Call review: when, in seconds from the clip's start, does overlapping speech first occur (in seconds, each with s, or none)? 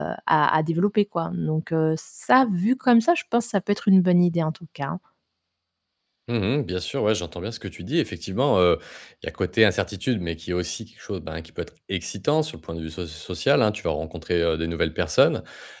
none